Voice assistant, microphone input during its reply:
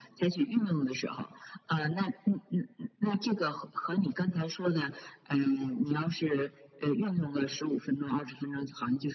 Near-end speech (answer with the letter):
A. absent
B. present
A